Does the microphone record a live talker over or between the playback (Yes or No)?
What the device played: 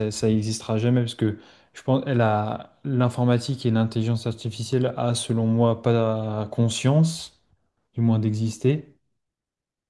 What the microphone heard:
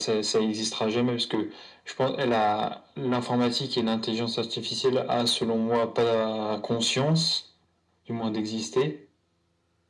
No